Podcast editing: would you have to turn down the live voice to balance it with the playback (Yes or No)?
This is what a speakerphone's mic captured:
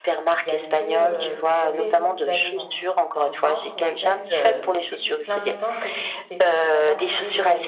No